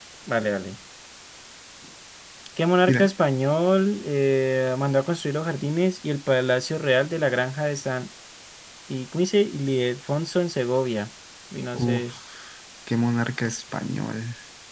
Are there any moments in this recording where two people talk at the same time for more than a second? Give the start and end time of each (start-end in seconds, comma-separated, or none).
none